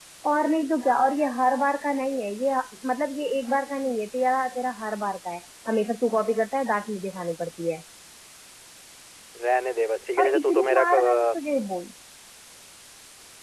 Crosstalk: present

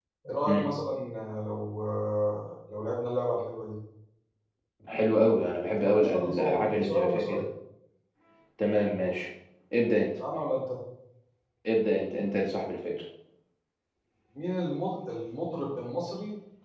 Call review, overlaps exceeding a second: present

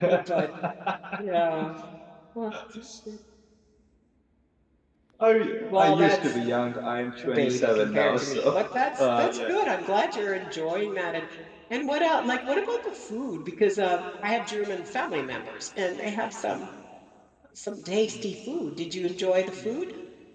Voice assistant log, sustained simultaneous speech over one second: present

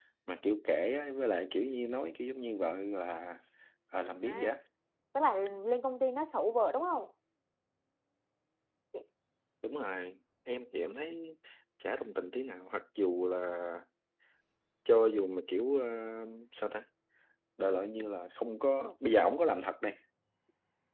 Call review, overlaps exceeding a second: none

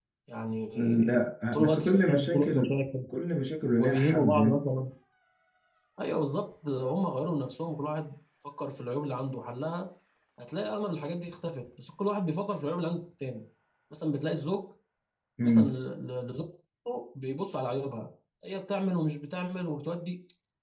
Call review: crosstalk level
present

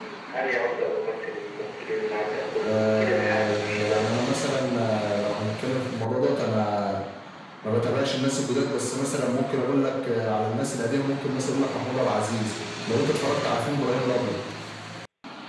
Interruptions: present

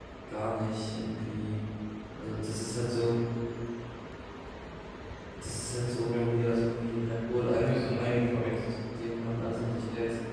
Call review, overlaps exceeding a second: present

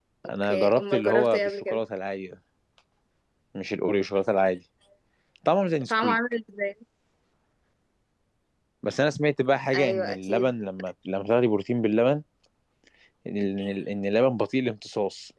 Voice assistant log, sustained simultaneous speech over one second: present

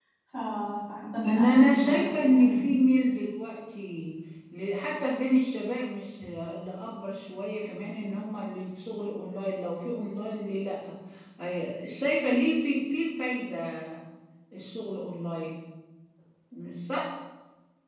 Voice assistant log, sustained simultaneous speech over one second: present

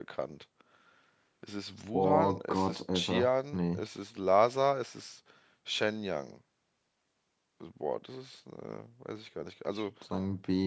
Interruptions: present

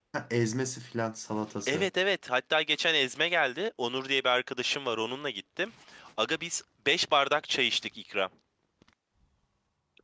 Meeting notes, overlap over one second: none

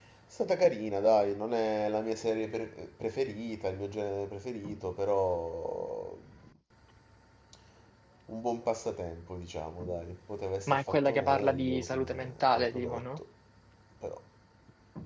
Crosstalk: present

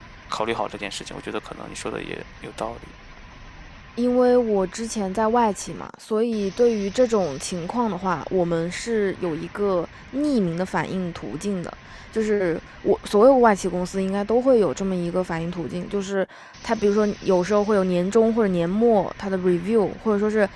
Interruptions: none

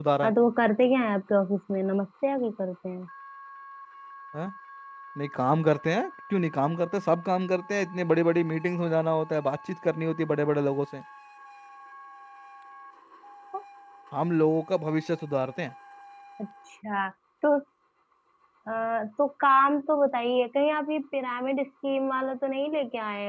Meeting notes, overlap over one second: none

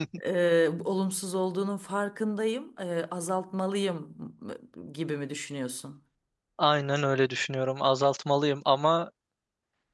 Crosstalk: none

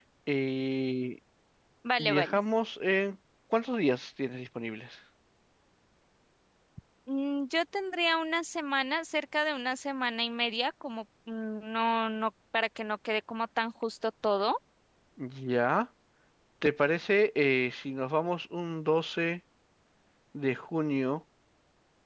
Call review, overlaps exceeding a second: none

